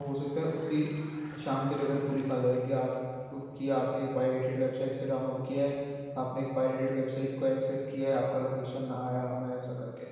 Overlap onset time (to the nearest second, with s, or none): none